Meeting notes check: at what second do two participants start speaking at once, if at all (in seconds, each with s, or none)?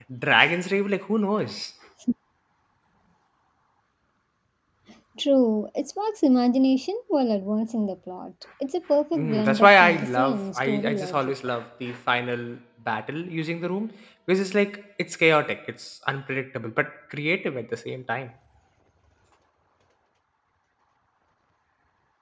9.1 s